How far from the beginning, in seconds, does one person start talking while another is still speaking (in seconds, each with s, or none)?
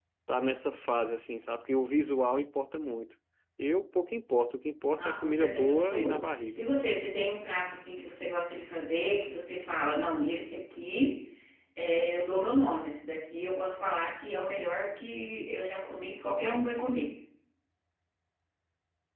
5.0 s